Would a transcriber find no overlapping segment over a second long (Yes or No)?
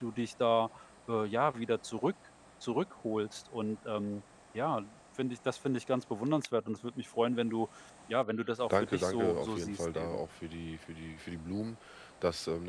No